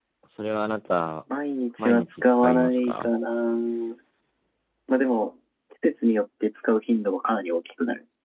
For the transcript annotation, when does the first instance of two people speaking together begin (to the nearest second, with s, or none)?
2 s